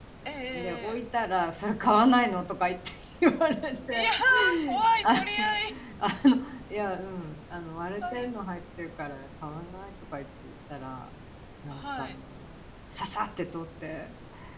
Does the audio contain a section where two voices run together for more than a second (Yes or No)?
No